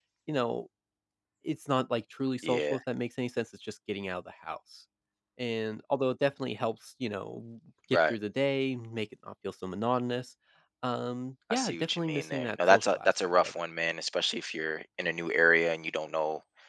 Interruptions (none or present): present